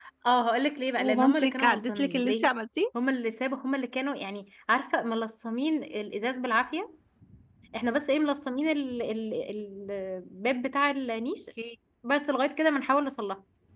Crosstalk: present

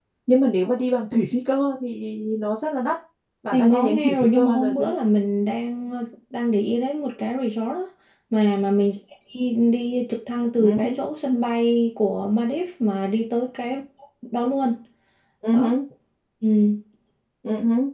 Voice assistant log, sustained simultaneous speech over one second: present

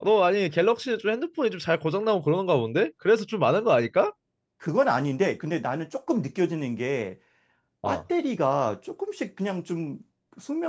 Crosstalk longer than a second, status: none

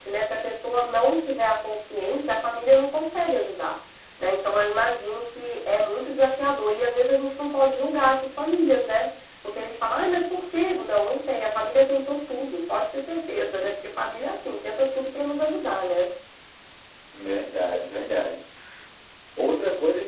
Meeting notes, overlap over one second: none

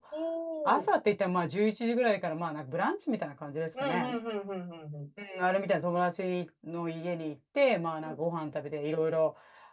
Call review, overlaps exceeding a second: none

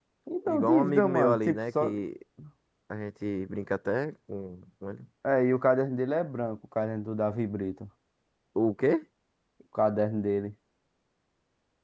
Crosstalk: present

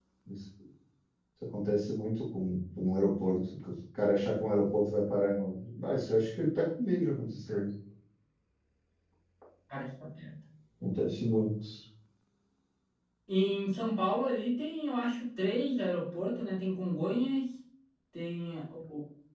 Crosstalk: none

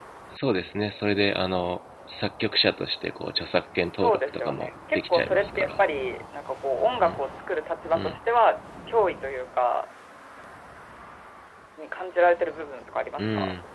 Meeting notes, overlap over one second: present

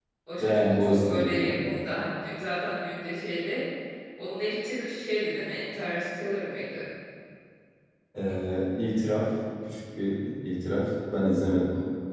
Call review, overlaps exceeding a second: present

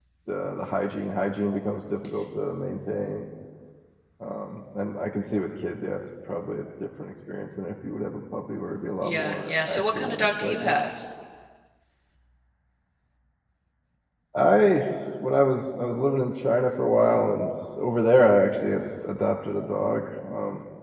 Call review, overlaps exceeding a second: present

